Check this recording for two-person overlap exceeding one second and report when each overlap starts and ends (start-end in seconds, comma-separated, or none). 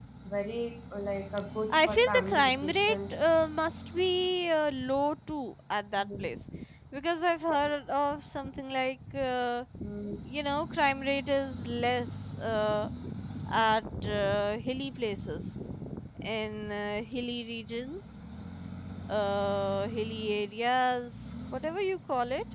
1.7-3.1